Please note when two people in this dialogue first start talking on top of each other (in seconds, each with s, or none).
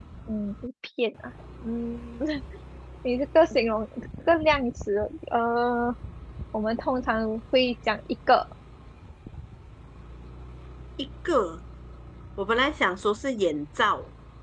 none